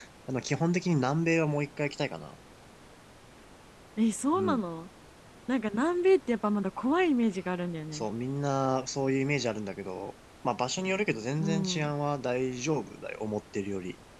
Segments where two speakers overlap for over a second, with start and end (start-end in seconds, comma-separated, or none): none